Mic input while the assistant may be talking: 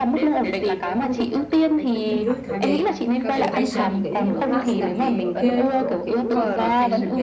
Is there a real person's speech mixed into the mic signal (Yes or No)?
Yes